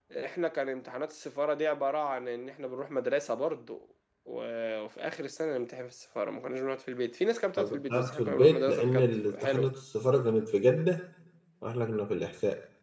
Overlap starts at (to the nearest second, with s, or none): 8 s